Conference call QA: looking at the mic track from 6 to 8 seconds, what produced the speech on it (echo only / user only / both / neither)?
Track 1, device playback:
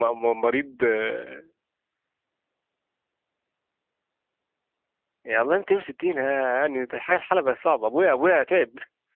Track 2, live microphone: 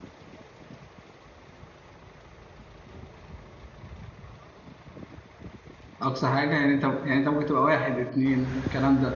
user only